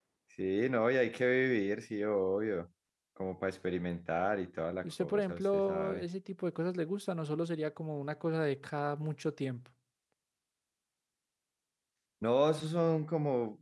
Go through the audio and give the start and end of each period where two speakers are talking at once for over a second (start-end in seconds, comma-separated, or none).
4.8-6.0